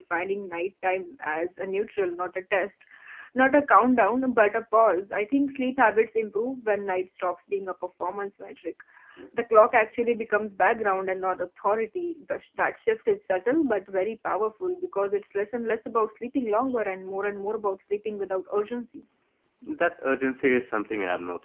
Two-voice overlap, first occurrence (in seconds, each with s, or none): none